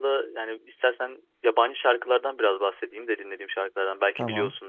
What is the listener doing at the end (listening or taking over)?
listening